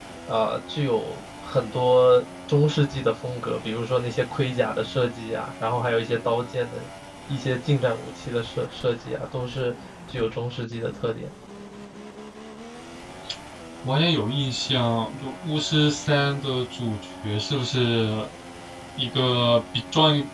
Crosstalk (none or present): none